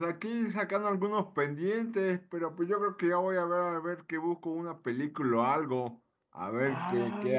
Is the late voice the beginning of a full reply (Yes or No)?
Yes